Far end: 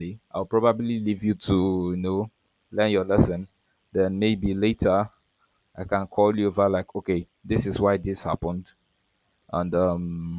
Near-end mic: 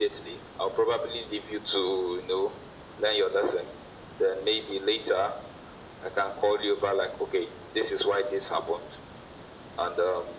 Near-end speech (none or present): none